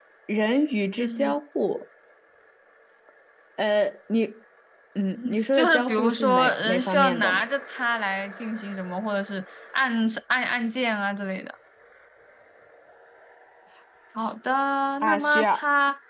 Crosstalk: present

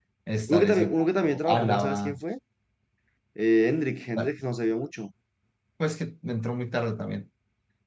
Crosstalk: present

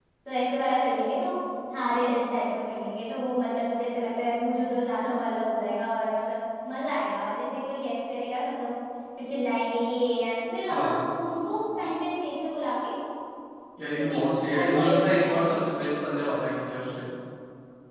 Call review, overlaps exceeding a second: present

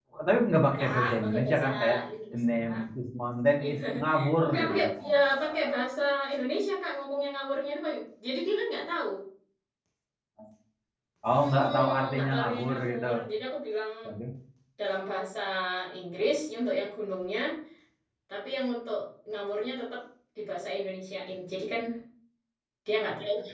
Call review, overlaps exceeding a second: present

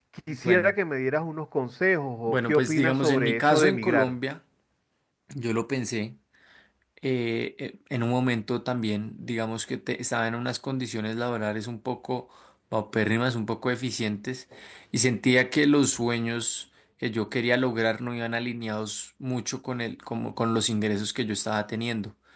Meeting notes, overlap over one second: present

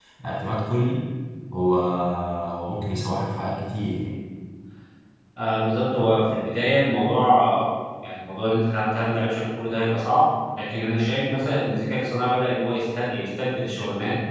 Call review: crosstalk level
none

